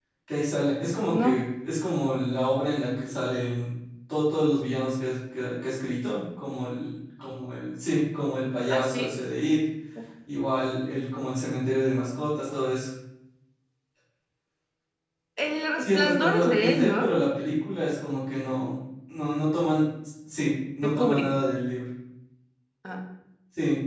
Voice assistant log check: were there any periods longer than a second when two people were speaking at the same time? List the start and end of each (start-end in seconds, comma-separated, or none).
15.8-17.1